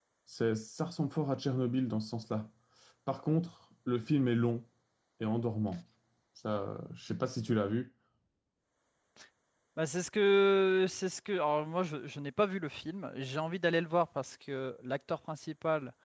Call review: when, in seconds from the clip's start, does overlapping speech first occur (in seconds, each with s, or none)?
none